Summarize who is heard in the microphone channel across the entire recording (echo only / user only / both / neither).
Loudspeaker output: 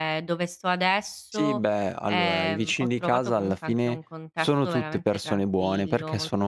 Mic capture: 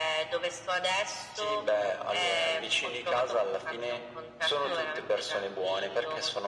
both